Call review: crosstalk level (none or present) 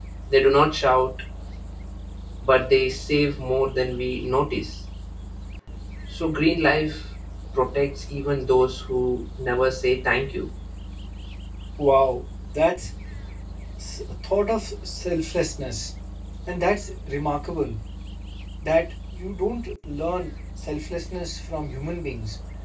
none